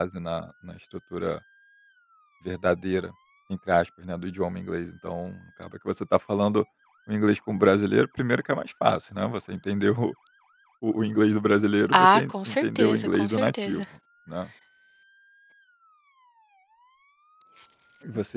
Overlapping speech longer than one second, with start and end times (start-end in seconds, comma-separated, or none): 11.9-13.8